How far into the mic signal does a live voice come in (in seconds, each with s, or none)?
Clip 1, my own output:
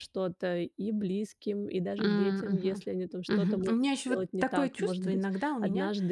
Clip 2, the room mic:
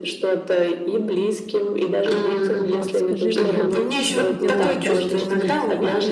2.7 s